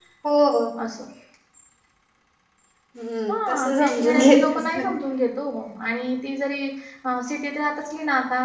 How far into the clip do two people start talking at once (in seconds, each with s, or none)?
3.3 s